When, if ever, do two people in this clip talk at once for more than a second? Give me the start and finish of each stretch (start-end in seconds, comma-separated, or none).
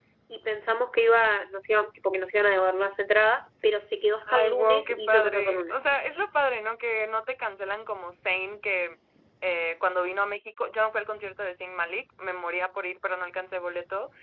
4.3-5.7